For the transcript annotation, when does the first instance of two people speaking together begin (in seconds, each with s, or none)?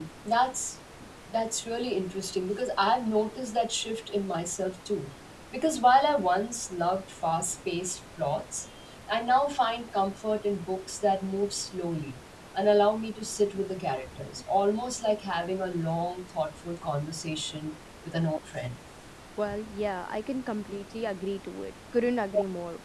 none